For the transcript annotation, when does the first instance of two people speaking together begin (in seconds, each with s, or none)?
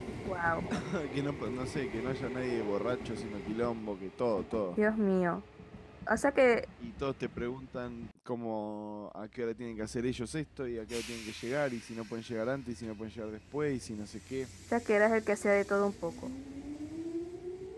none